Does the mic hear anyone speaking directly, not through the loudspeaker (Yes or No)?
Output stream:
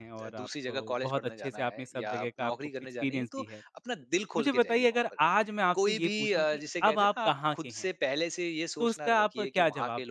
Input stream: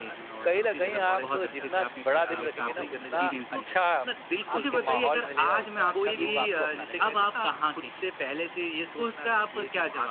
Yes